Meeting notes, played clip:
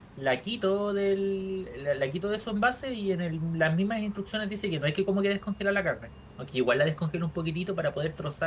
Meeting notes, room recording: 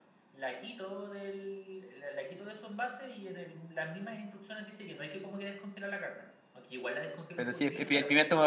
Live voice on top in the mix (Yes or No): Yes